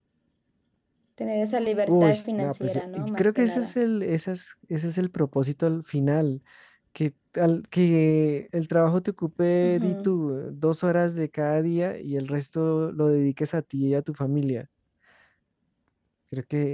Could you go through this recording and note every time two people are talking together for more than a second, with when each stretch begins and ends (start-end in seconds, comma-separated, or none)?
1.9-3.7